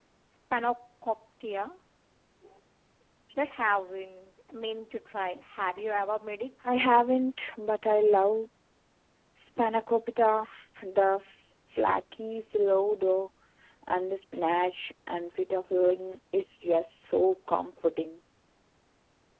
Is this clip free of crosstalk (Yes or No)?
Yes